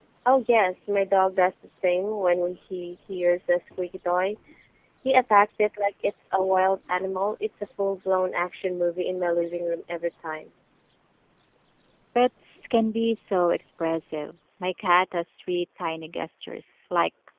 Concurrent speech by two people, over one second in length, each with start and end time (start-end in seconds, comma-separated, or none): none